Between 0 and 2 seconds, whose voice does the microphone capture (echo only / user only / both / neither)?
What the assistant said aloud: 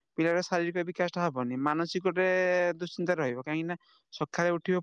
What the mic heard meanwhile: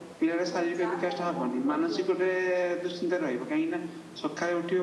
both